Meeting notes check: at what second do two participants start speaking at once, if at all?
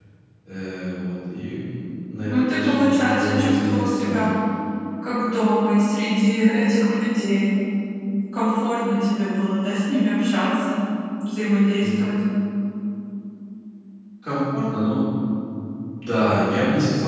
2.2 s

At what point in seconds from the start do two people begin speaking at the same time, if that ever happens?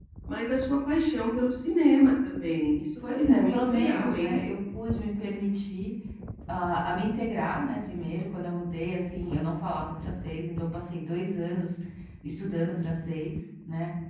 3.0 s

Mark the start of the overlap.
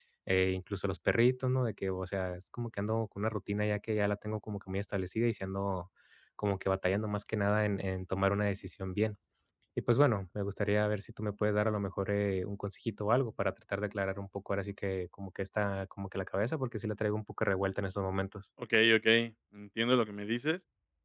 none

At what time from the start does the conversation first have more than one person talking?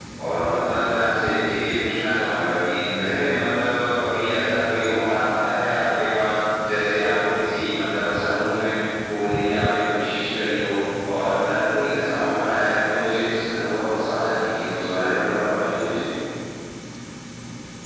none

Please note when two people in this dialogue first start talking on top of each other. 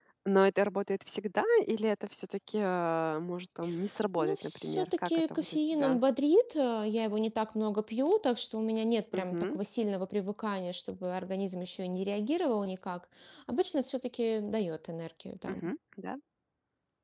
4.2 s

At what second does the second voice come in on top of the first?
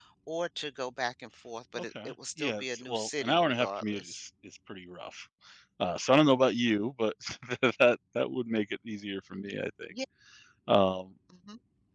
1.8 s

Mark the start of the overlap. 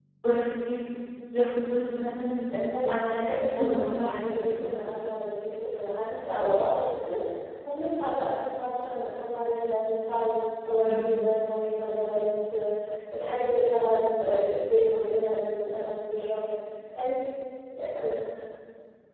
2.5 s

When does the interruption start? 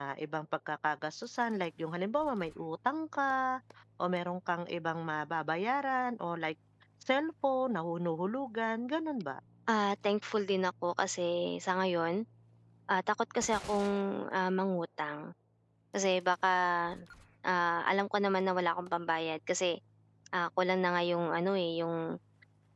none

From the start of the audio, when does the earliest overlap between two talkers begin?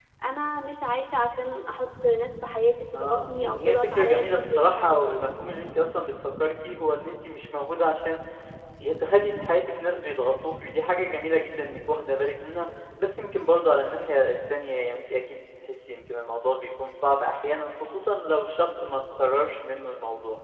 2.9 s

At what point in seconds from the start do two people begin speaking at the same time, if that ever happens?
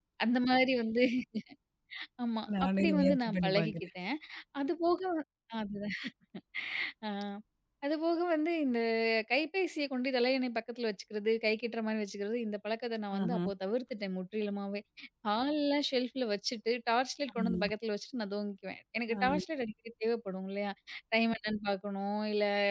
2.6 s

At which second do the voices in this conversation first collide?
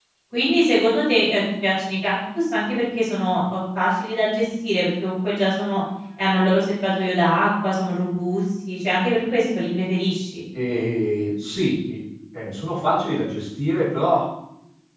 none

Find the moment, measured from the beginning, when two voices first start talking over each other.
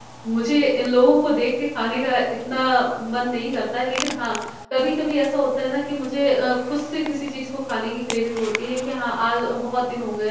none

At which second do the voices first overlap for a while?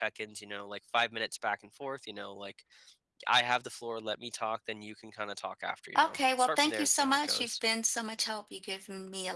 6.0 s

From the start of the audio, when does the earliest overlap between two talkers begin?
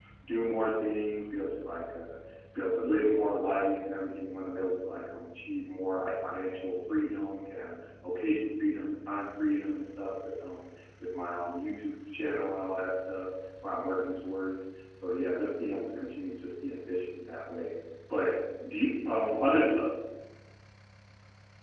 none

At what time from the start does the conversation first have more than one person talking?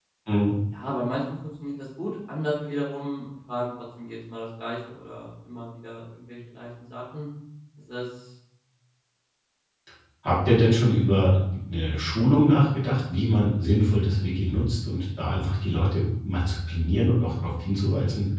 none

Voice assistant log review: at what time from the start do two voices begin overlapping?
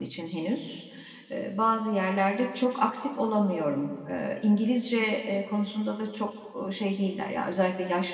none

